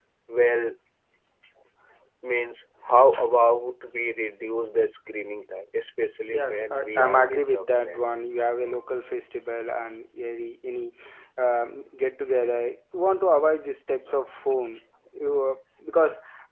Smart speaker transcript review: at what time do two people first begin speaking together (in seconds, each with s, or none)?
6.3 s